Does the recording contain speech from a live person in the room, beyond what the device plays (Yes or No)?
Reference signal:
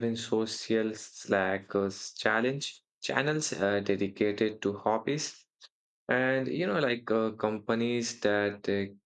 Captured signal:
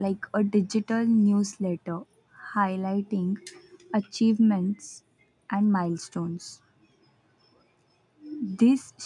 Yes